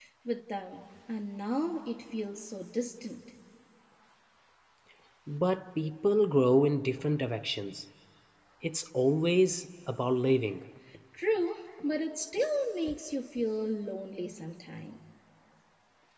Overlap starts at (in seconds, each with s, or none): none